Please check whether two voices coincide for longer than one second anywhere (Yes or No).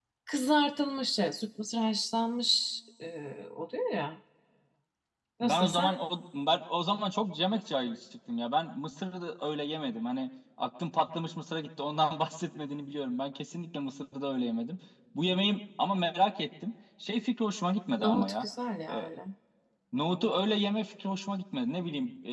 No